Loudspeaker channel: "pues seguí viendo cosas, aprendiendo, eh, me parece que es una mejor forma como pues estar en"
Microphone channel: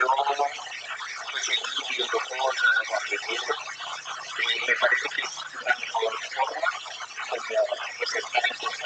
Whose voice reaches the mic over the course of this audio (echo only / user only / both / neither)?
echo only